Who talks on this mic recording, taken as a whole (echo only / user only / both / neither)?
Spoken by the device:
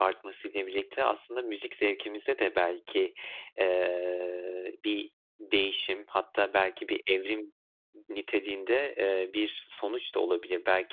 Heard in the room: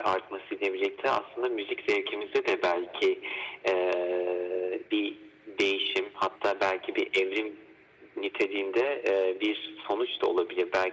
echo only